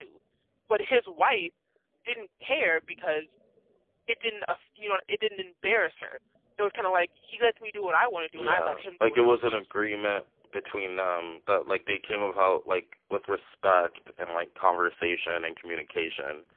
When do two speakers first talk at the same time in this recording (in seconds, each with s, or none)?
8.3 s